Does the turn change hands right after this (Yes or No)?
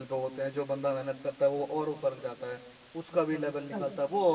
No